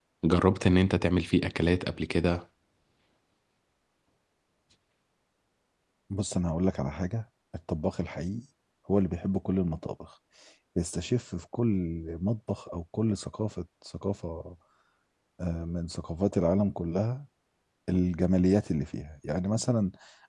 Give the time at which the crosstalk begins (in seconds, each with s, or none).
none